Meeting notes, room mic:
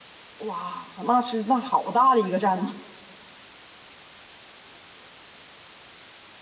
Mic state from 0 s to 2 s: user only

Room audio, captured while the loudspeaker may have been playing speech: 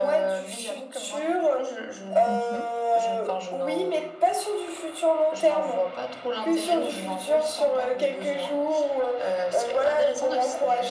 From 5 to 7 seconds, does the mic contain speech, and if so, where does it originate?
echo only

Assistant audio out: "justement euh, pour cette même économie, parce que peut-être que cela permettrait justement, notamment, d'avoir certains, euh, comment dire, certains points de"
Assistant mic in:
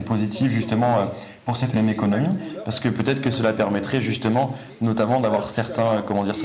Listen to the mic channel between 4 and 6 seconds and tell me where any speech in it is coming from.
both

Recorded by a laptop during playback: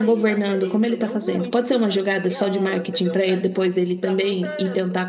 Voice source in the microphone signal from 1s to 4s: both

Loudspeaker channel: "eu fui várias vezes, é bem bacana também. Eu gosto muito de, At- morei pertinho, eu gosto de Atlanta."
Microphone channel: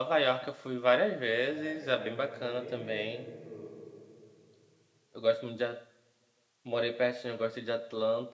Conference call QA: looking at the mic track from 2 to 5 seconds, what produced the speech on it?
both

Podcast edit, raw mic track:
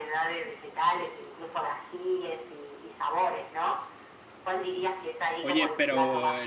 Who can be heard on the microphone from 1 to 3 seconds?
echo only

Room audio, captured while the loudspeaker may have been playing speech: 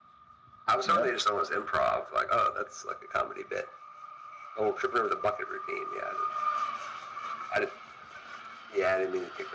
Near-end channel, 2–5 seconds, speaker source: echo only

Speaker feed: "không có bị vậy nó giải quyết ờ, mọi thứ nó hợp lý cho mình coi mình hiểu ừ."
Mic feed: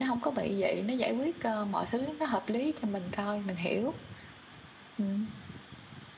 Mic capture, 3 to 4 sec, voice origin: echo only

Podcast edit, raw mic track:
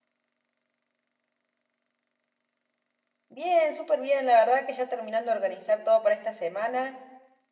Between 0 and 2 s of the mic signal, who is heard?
neither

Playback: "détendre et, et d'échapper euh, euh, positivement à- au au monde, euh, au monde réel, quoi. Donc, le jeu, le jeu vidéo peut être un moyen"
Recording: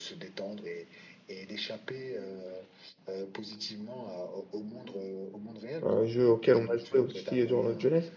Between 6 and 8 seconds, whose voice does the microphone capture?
both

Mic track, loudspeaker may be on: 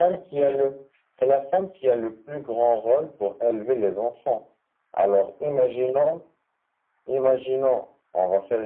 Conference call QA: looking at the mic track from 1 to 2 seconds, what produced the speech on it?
echo only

